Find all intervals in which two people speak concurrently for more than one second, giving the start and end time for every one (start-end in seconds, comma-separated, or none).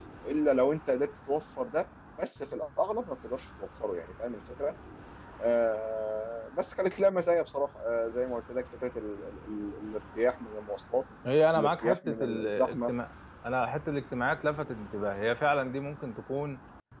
11.5-12.9